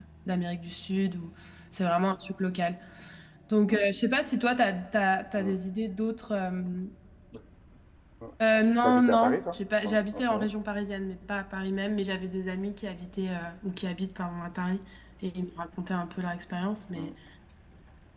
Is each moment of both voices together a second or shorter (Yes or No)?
No